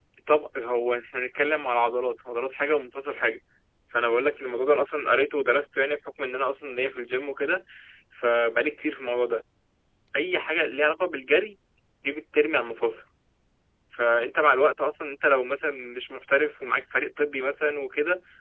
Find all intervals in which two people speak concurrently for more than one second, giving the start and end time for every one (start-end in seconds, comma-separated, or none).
none